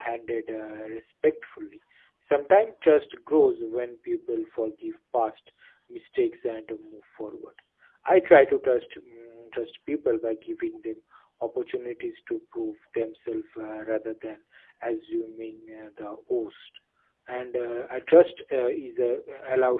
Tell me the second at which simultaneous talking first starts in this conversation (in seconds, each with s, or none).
none